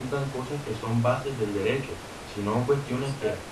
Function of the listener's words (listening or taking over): listening